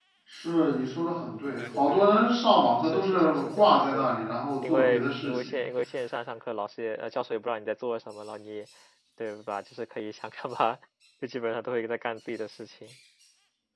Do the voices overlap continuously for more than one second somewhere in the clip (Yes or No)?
Yes